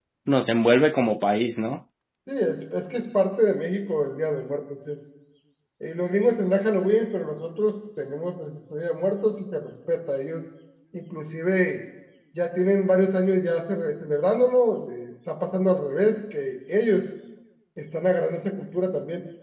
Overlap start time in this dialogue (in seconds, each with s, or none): none